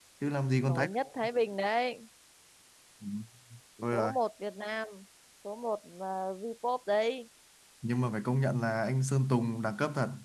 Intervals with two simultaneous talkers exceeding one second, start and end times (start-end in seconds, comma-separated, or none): none